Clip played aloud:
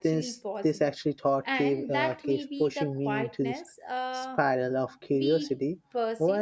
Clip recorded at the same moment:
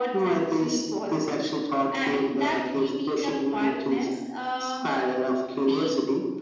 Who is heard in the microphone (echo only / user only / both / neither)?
echo only